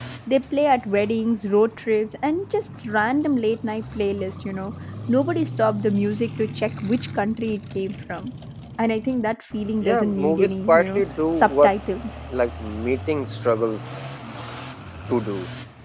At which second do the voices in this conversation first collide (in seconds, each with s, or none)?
9.8 s